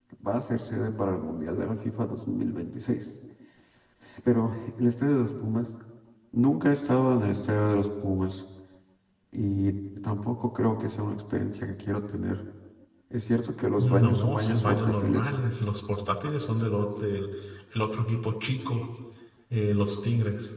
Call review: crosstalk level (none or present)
present